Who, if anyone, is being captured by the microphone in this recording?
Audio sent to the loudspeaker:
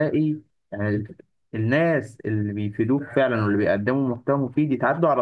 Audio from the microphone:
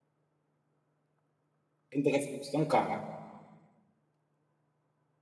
user only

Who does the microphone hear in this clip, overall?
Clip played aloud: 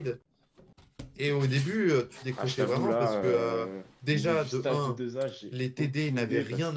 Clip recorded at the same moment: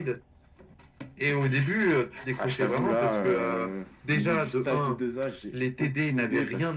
echo only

